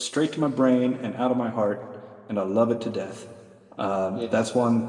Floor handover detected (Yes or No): No